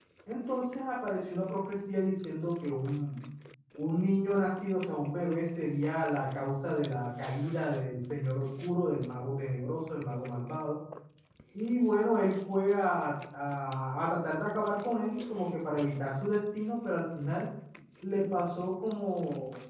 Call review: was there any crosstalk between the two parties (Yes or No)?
No